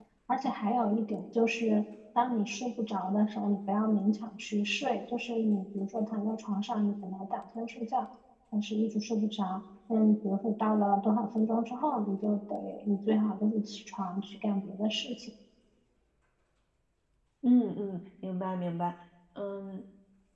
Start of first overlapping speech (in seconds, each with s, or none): none